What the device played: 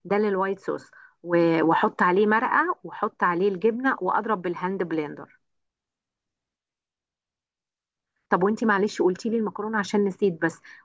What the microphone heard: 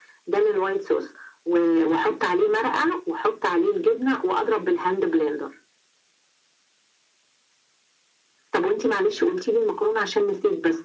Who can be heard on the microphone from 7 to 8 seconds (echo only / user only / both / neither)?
neither